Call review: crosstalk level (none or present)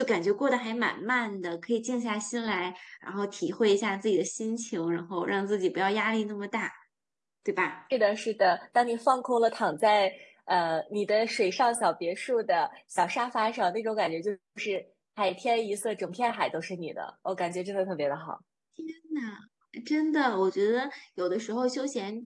none